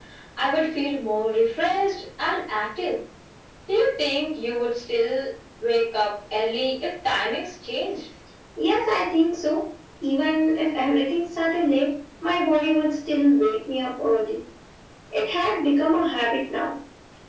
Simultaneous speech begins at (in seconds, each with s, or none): none